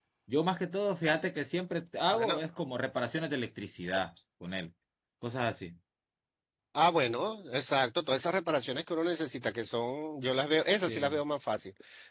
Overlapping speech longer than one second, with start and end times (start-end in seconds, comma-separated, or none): none